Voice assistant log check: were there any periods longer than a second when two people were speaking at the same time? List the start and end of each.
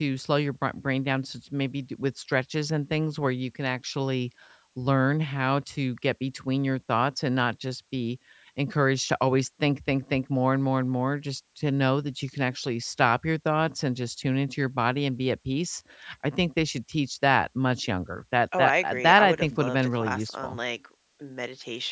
18.6-20.6

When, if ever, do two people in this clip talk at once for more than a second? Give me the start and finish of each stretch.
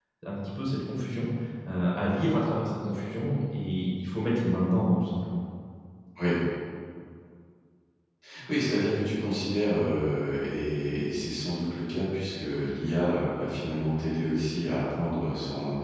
none

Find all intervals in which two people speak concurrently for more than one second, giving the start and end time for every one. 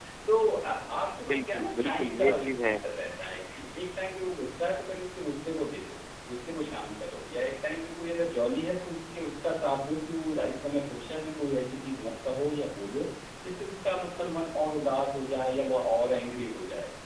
1.3-2.8

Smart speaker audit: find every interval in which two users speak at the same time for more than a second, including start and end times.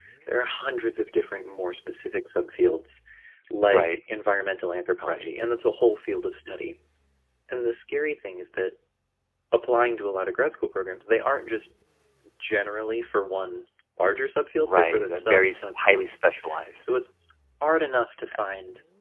14.6-16.2

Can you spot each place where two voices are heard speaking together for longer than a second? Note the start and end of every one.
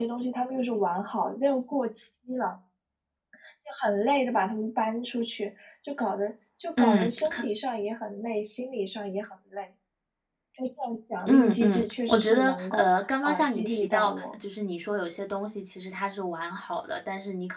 11.3-14.4

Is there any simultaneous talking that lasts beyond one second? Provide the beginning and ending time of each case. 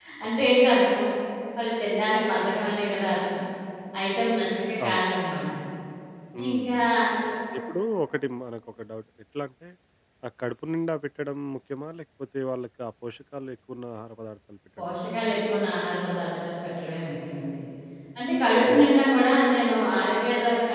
none

